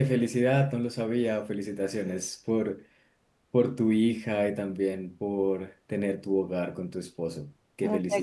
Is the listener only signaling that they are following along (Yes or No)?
No